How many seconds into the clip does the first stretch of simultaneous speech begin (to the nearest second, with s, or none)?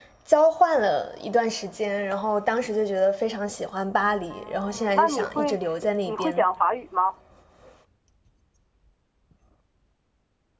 4 s